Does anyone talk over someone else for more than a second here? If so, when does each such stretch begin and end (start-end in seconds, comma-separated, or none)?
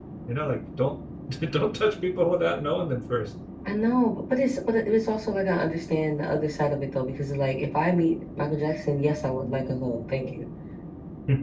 none